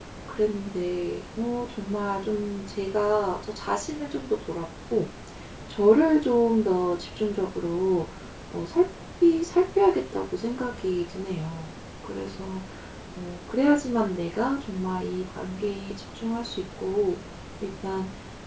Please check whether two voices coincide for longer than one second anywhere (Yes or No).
No